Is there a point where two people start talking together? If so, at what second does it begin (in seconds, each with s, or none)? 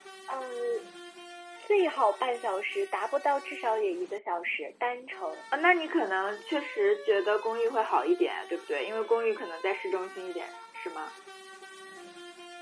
none